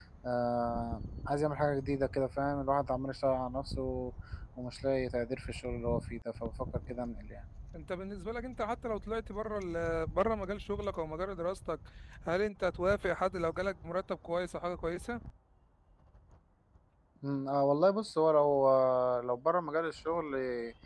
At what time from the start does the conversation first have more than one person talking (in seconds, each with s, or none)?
none